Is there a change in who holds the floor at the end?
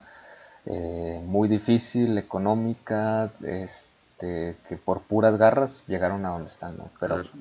Yes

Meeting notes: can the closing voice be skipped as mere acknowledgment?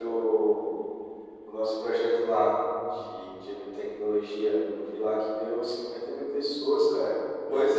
No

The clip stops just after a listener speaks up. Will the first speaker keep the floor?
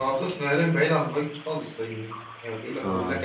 No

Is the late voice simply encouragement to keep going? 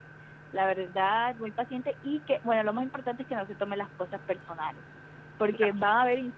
Yes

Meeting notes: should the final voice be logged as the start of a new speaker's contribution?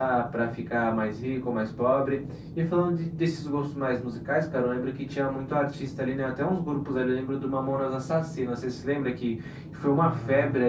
No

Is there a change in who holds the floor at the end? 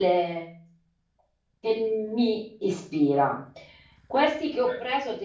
No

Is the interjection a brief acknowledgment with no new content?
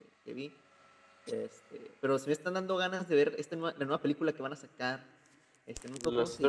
Yes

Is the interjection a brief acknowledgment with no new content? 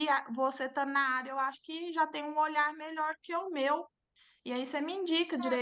No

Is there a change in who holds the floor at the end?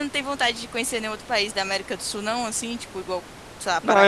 Yes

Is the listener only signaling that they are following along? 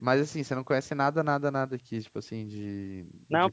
No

